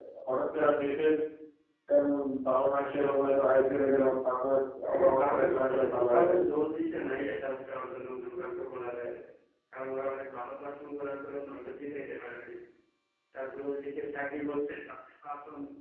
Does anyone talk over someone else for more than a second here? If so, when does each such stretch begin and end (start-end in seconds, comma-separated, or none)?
4.8-6.3